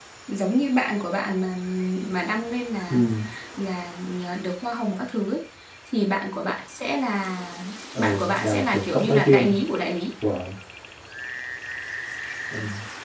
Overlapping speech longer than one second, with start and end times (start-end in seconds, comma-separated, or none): 8.0-9.6